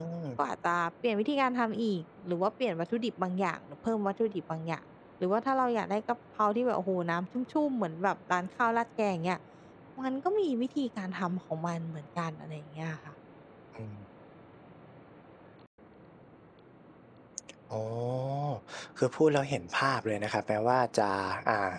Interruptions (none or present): none